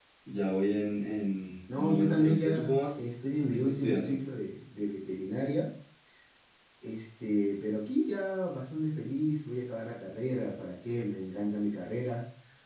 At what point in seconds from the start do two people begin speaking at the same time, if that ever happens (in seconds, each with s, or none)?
1.7 s